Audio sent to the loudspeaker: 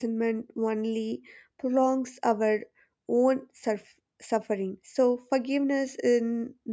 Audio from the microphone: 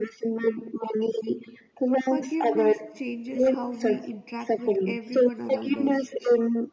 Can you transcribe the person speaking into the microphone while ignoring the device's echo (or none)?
forgiveness changes how we interact with everyone around us